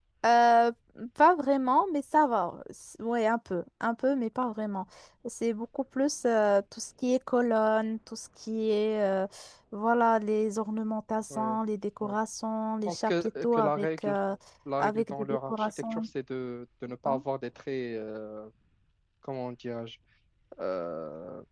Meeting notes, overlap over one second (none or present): present